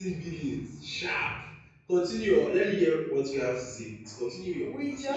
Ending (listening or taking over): taking over